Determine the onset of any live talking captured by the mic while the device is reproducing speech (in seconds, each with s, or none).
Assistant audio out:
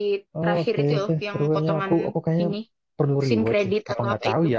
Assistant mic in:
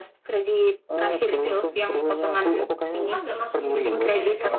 3.0 s